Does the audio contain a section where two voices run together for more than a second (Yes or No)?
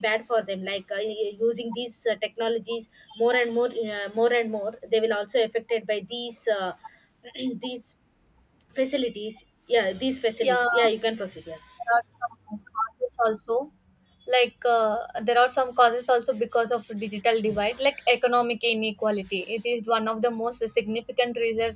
No